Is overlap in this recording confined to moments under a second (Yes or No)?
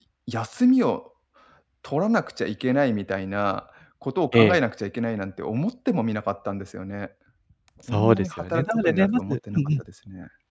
No